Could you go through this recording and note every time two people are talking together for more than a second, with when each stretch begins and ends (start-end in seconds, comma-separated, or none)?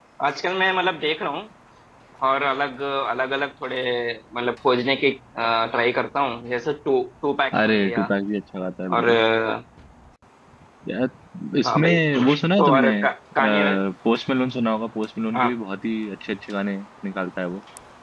11.6-12.9